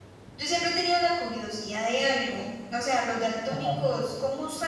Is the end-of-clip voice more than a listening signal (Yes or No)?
No